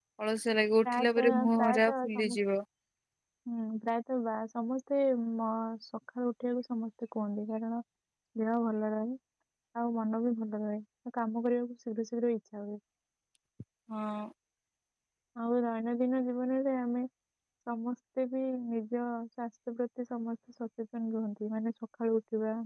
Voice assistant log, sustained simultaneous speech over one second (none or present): present